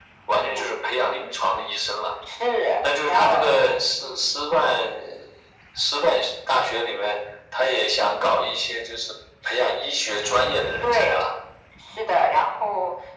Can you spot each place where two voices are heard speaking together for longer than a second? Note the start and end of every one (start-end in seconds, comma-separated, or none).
3.1-4.3